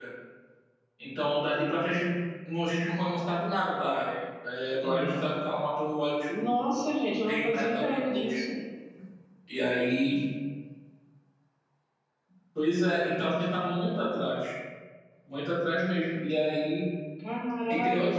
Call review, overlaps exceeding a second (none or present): present